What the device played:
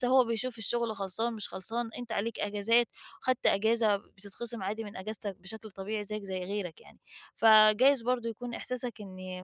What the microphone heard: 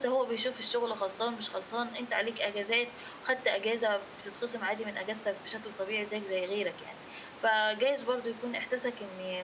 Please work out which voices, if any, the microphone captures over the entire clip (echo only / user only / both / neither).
echo only